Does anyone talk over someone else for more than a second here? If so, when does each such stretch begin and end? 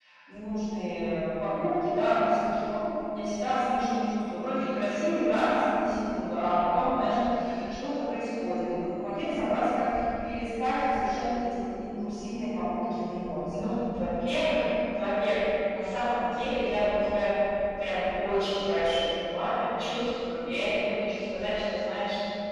none

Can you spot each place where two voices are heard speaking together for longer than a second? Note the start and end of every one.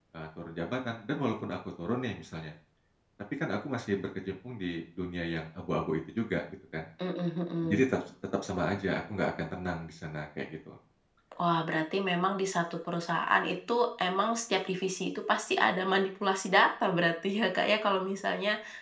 none

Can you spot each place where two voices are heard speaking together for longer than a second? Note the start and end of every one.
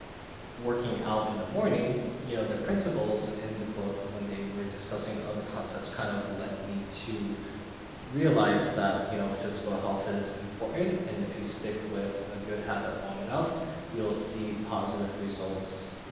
none

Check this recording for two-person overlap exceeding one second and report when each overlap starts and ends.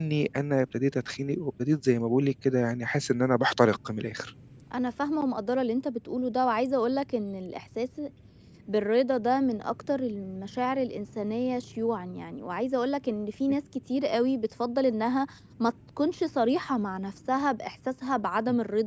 none

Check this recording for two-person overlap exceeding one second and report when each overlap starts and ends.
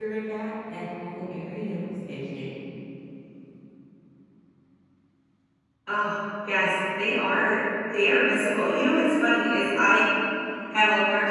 none

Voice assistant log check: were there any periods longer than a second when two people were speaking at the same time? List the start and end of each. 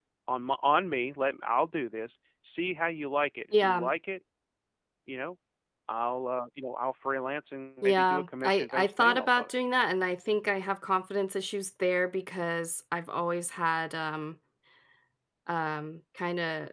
7.8-9.5

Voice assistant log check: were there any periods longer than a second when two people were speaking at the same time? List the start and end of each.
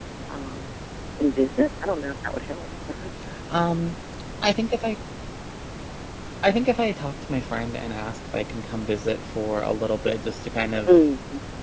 none

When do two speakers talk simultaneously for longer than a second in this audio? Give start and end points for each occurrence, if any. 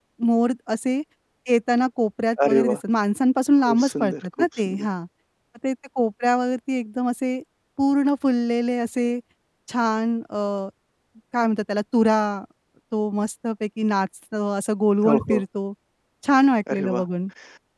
3.6-4.9

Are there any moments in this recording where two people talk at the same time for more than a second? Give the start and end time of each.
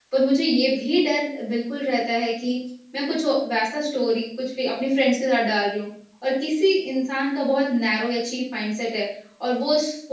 none

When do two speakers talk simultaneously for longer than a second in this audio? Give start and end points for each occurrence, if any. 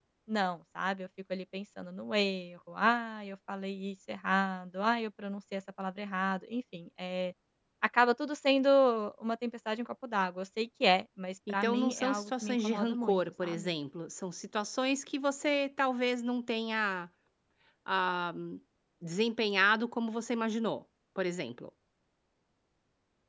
11.5-13.7

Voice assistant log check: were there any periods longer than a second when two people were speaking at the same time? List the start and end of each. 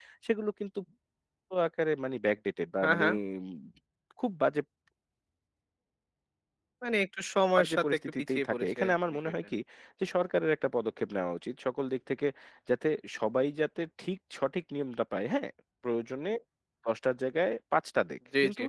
7.6-9.3

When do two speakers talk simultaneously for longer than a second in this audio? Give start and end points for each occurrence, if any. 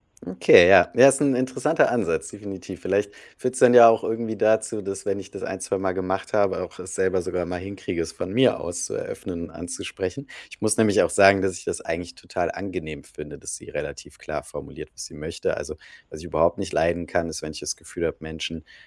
none

